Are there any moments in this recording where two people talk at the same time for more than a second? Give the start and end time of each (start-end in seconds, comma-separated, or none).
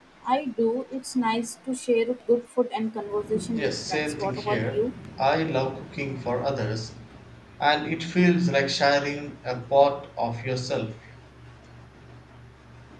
3.5-4.8